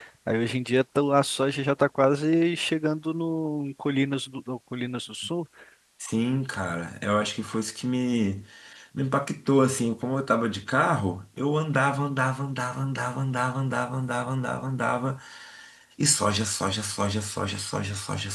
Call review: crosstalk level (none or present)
none